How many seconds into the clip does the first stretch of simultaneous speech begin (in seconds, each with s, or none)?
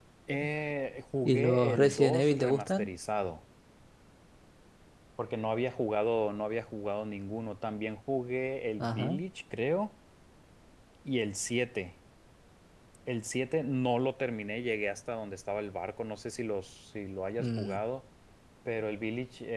1.2 s